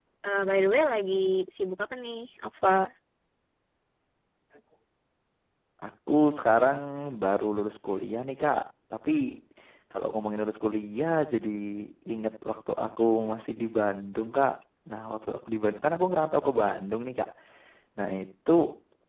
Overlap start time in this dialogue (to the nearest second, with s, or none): none